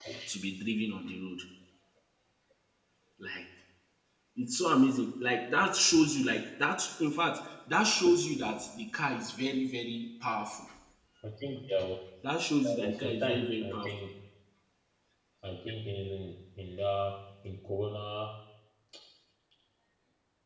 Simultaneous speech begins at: 12.6 s

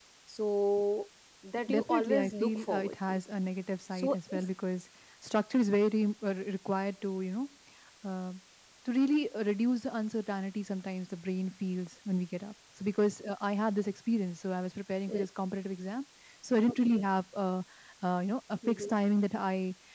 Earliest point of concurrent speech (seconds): 1.7 s

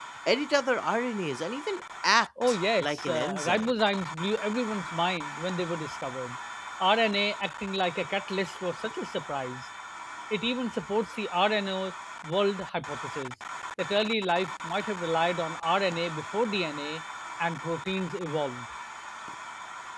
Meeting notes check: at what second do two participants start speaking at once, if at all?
2.4 s

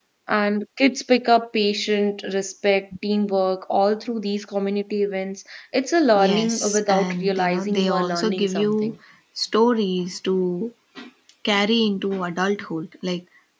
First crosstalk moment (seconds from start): 6.1 s

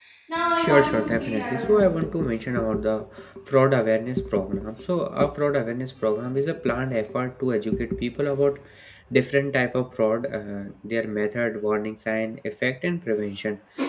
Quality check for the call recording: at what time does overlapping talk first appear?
0.6 s

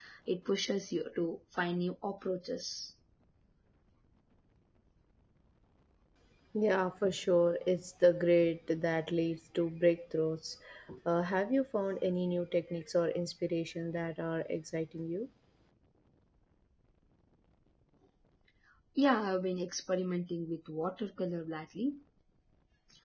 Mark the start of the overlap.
none

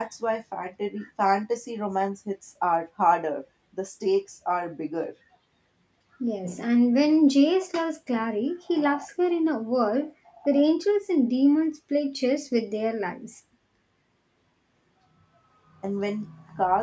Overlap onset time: none

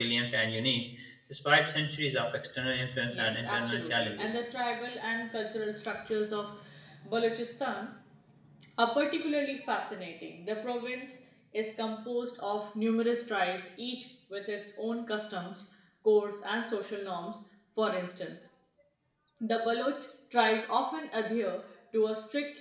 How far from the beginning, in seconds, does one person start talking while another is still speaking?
3.1 s

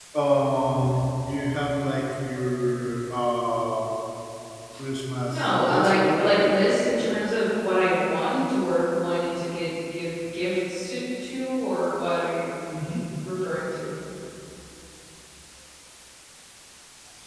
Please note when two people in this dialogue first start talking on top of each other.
5.3 s

